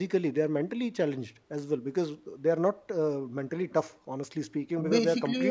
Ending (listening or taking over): listening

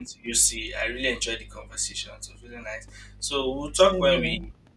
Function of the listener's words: listening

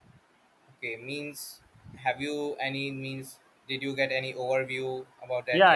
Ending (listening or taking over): taking over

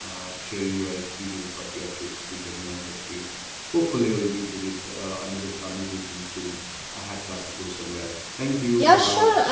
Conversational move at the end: taking over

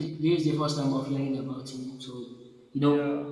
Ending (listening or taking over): listening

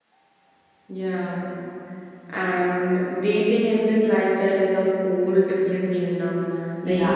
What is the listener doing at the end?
listening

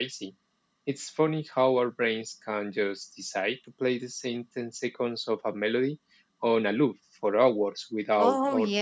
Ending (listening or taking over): taking over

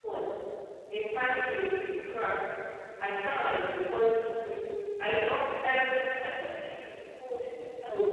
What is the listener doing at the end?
listening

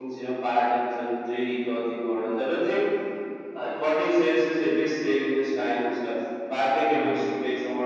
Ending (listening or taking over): listening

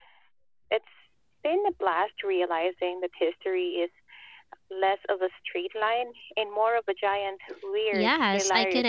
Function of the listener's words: taking over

